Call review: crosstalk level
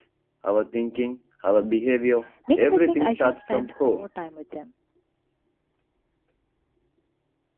present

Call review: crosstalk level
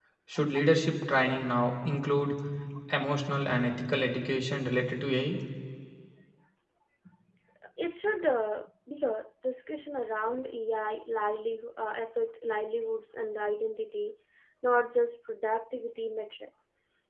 none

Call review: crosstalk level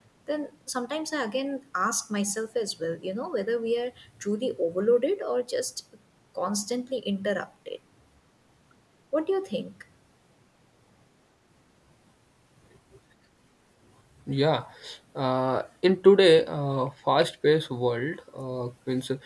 none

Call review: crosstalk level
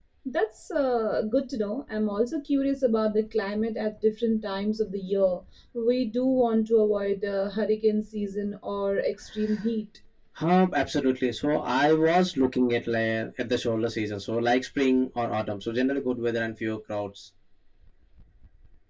none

